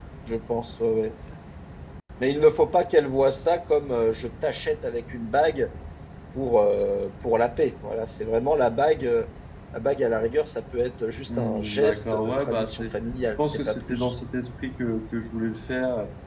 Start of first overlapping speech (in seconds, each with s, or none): 11.3 s